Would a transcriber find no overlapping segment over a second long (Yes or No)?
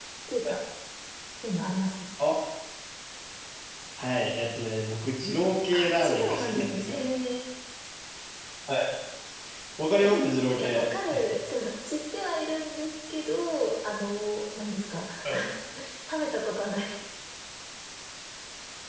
No